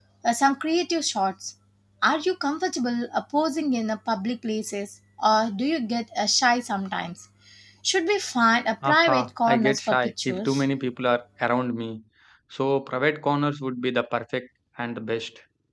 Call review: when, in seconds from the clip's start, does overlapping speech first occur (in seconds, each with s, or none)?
8.8 s